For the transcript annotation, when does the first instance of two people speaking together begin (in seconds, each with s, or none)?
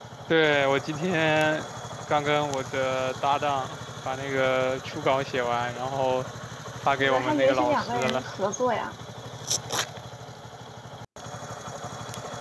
7.0 s